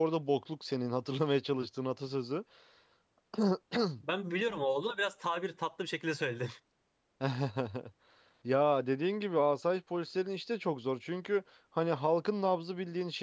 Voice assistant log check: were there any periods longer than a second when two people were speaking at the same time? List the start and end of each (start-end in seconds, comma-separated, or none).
none